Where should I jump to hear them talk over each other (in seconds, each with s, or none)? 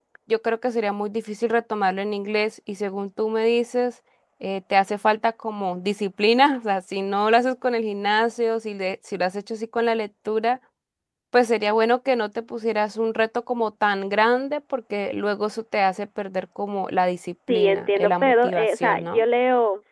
17.5 s